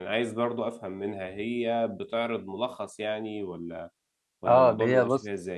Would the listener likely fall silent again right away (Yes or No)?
No